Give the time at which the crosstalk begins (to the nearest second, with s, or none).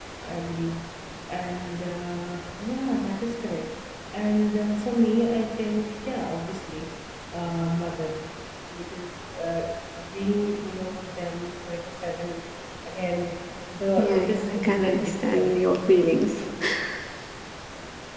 14 s